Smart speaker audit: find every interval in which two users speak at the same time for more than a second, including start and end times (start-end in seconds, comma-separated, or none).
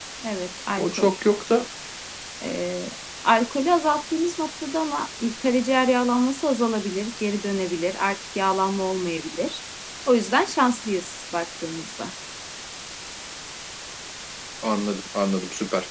none